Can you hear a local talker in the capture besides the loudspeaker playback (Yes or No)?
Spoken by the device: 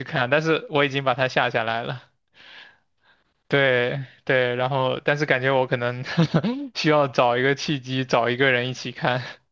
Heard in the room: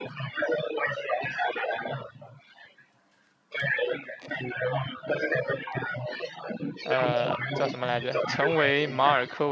Yes